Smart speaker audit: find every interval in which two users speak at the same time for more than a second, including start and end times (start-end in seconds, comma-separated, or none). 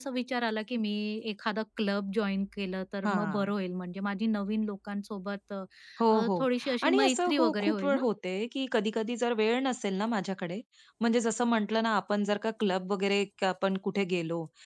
6.8-8.0